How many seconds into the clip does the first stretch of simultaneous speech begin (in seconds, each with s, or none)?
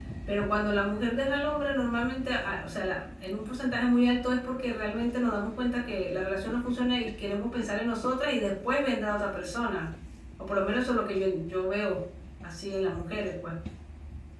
none